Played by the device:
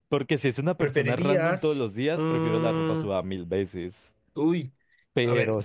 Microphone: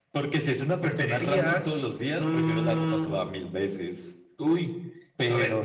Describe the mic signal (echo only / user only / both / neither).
echo only